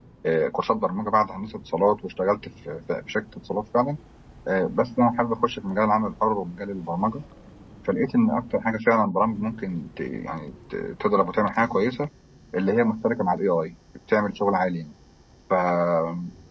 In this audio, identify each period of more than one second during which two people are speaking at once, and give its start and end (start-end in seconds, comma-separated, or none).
none